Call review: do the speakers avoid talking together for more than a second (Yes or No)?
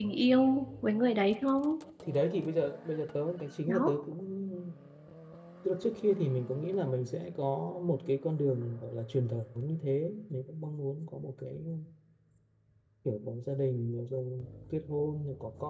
Yes